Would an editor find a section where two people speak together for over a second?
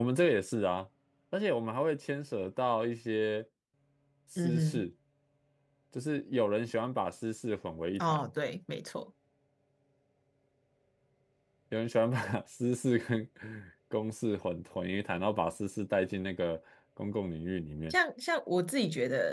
No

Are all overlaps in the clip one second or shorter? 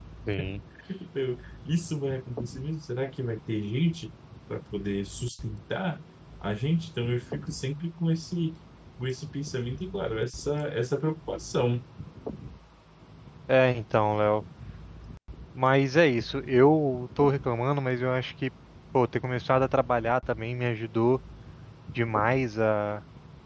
Yes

